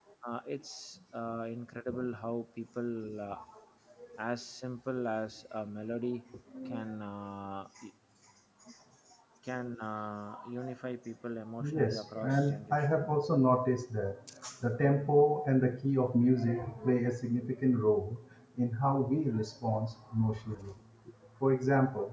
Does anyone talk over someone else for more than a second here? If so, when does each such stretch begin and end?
11.7-13.0

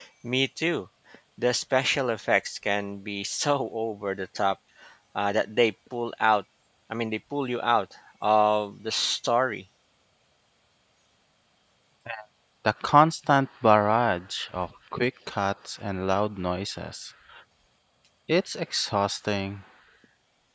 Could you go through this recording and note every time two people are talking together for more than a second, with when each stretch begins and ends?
none

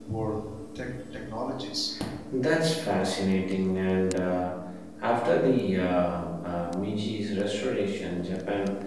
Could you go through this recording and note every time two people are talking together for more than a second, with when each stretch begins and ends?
none

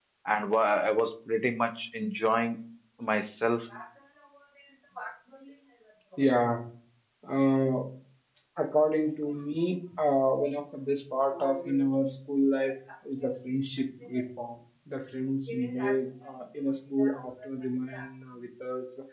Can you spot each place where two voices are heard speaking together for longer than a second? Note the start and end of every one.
none

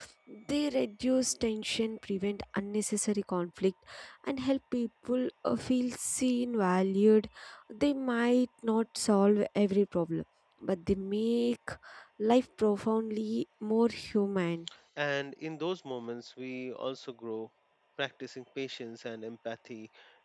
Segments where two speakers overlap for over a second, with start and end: none

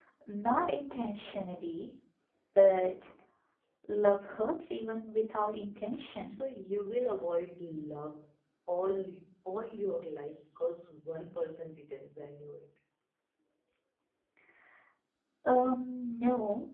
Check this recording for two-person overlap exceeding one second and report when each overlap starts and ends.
none

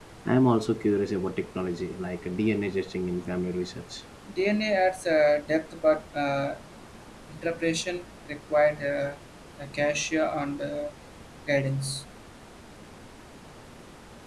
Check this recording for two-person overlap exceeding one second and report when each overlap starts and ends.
none

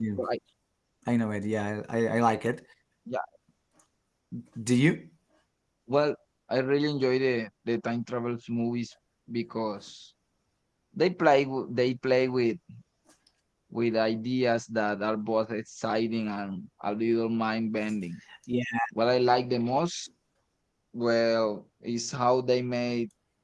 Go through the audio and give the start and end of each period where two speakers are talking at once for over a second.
none

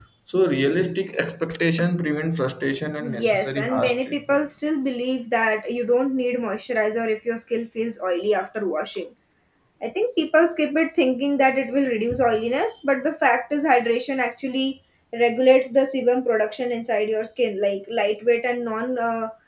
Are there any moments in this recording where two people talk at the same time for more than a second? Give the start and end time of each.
3.0-4.4

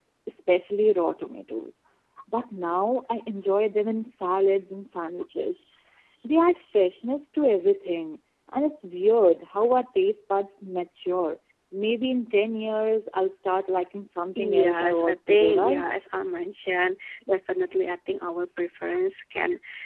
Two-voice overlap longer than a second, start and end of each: 14.4-15.9

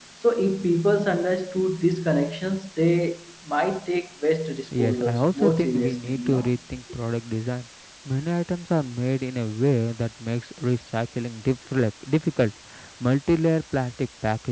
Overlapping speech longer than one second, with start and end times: 4.8-6.5

